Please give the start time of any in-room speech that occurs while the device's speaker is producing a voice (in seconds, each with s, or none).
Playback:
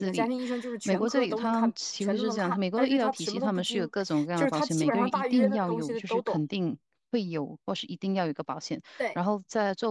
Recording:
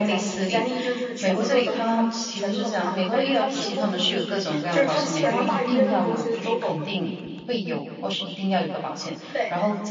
none